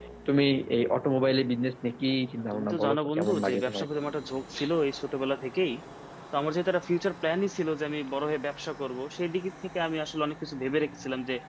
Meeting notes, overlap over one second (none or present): present